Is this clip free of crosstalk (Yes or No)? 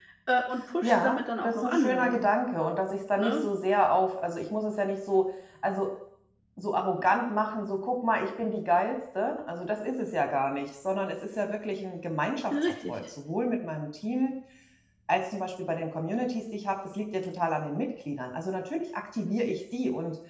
No